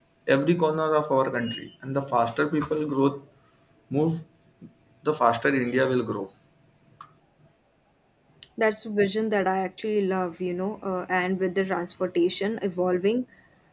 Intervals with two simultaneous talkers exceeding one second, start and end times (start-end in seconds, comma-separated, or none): none